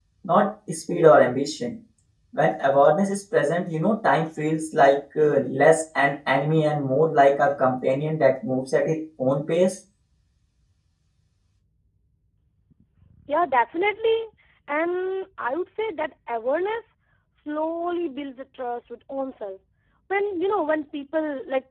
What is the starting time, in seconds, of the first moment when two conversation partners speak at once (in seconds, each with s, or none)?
none